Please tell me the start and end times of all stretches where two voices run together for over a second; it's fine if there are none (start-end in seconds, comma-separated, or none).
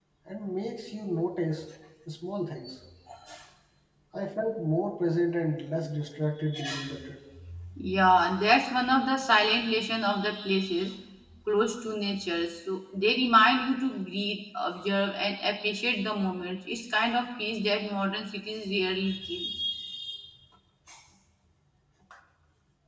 none